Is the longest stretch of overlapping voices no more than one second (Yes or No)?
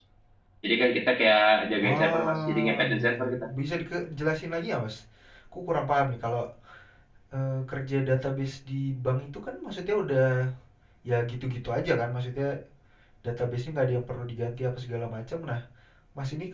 No